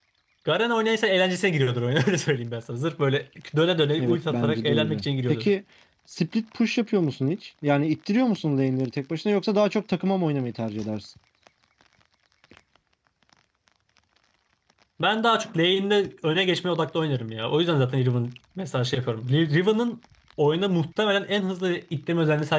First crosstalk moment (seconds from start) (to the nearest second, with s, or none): 4 s